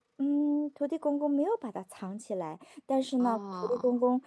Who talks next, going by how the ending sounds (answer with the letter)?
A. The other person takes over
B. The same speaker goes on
B